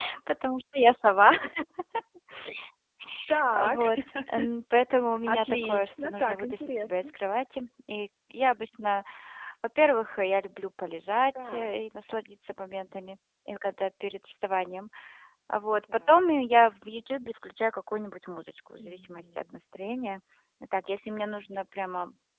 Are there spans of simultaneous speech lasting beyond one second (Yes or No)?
Yes